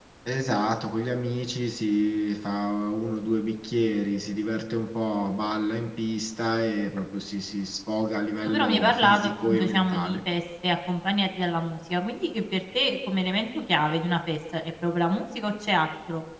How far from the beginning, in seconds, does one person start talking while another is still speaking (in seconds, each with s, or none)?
8.4 s